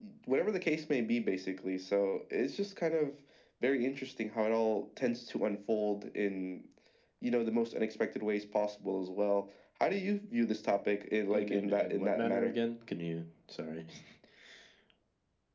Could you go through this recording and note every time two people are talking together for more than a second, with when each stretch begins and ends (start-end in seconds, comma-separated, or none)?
11.3-12.5